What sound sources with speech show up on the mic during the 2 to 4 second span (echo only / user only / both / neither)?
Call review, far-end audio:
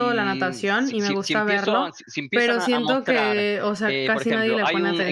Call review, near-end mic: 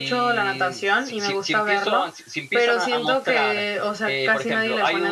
echo only